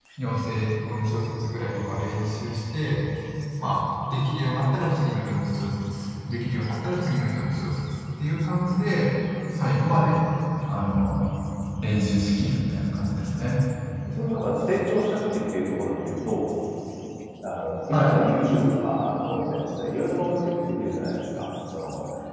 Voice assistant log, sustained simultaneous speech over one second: none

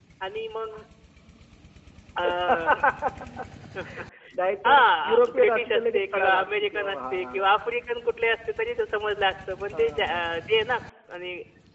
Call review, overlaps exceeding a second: present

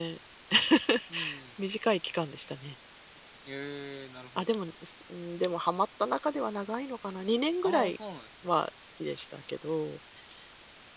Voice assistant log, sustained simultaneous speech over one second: none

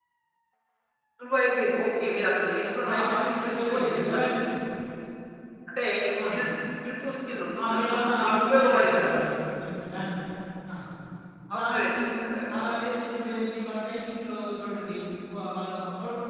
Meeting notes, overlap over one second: present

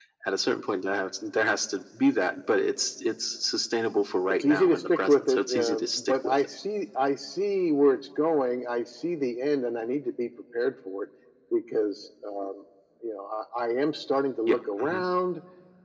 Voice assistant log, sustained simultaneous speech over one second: present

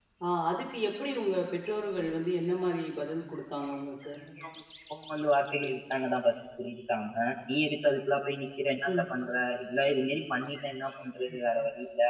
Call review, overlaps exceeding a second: none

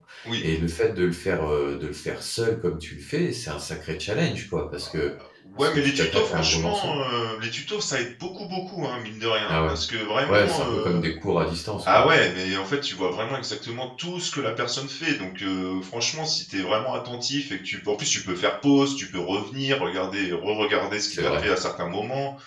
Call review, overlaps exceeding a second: present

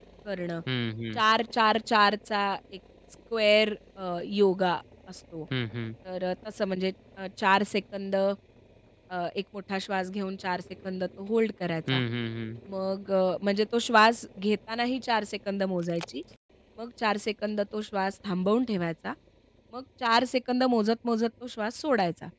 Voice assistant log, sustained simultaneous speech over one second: none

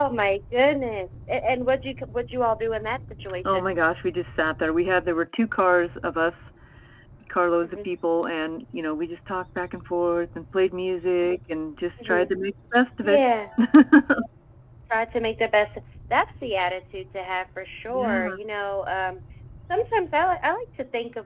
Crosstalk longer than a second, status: none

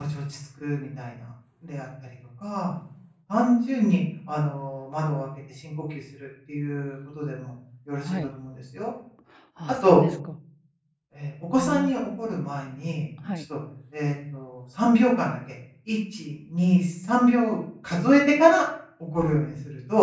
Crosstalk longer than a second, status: none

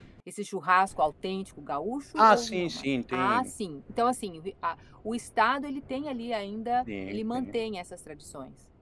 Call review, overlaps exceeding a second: present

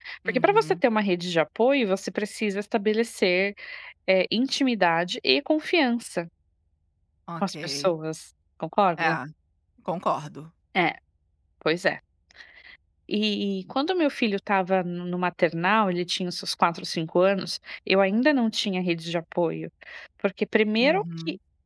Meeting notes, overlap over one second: none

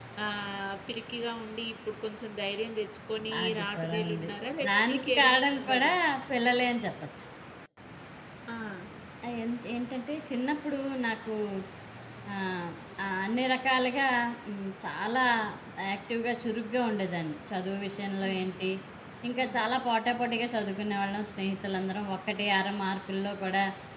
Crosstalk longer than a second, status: present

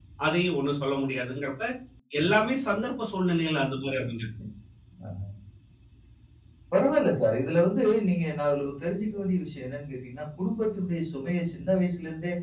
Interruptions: none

